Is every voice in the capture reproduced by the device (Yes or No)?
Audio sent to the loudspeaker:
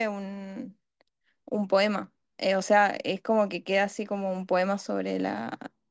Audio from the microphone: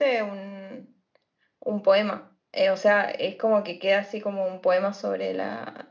Yes